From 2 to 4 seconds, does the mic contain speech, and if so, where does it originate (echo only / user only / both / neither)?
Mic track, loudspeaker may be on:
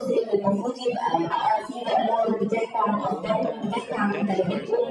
both